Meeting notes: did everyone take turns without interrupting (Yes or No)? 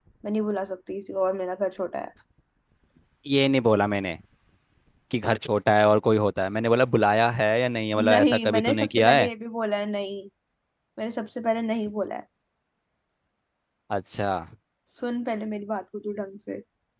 No